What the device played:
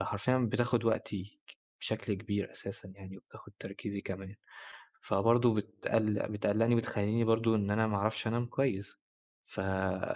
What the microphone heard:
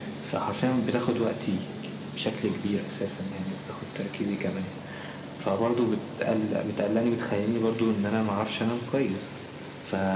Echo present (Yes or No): Yes